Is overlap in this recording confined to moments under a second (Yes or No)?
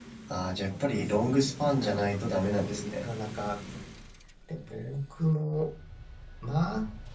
No